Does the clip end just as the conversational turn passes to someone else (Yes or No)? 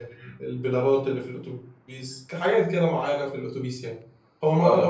No